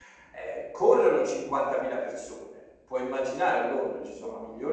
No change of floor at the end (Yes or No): Yes